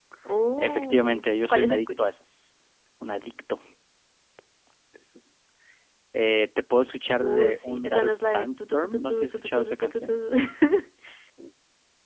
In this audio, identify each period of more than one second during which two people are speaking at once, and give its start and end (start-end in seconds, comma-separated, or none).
0.6-2.1, 7.2-10.1